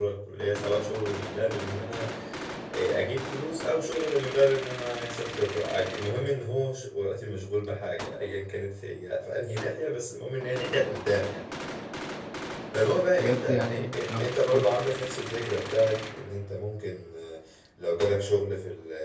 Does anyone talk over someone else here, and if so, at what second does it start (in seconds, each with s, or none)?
12.9 s